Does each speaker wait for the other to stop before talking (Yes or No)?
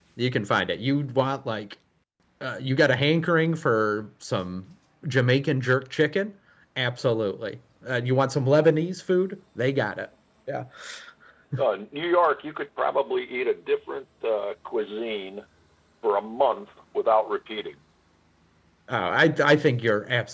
Yes